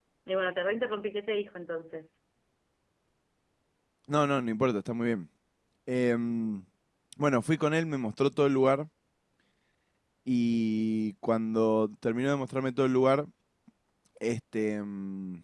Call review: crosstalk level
none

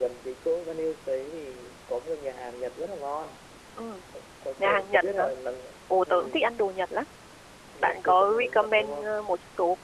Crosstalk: present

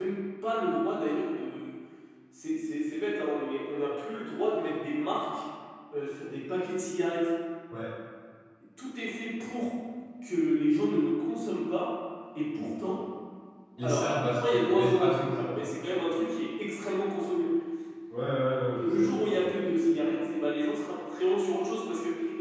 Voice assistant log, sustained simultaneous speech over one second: present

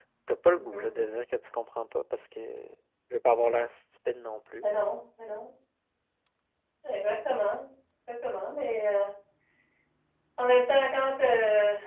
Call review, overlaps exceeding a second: none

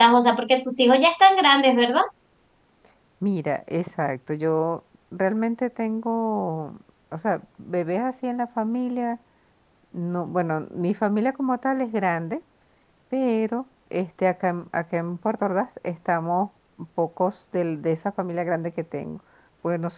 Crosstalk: none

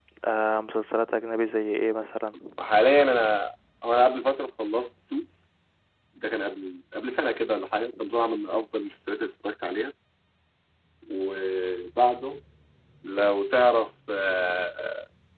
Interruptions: none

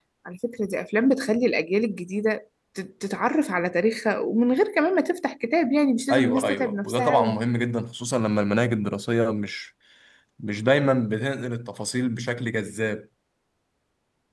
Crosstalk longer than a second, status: present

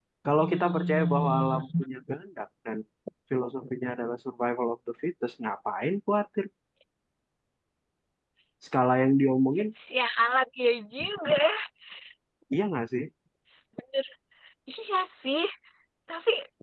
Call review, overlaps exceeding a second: present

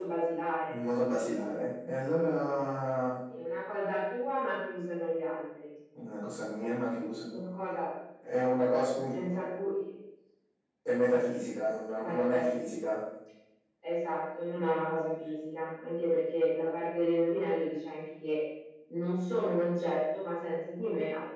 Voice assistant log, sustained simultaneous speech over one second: none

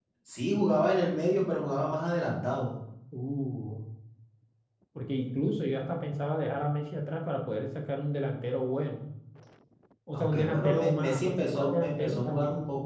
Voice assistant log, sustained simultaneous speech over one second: present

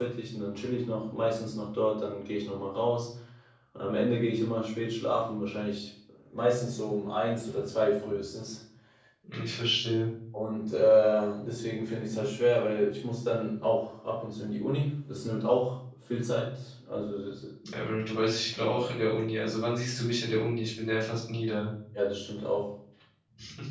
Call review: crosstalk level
none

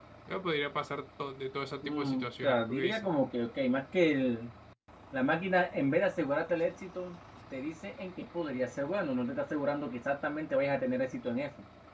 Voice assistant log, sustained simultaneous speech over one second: present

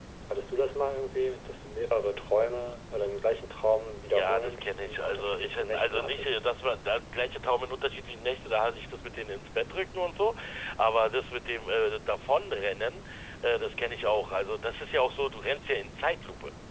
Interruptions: present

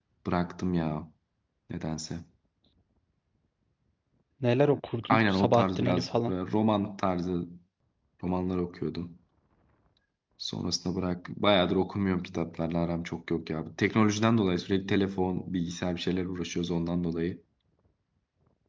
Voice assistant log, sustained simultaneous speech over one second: present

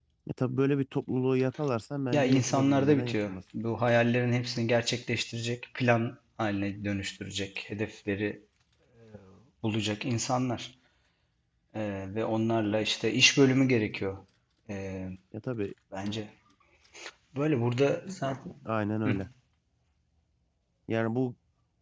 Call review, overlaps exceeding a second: present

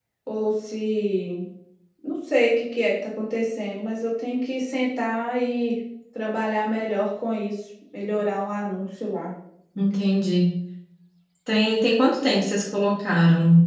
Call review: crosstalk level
none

